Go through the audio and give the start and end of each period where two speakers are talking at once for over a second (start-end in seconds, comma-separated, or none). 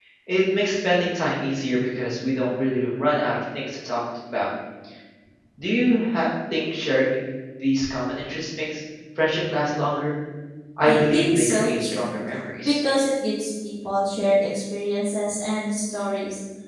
10.8-12.1